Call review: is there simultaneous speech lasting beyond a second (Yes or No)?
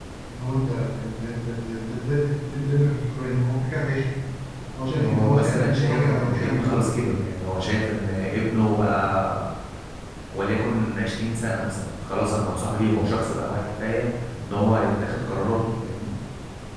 Yes